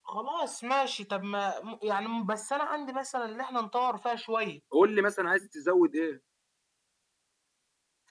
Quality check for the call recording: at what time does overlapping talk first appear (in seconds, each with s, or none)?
none